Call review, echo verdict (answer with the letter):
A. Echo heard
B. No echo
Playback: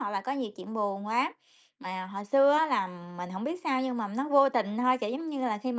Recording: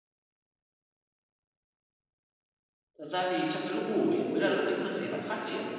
B